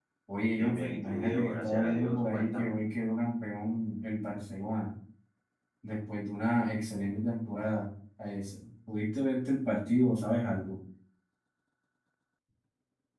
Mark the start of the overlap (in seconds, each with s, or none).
0.5 s